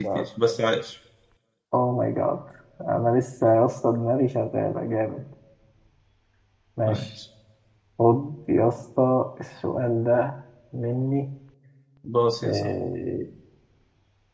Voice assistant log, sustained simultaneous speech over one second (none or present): none